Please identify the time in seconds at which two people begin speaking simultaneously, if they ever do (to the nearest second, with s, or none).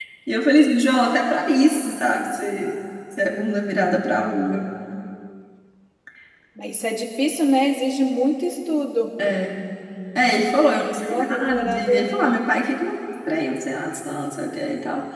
11 s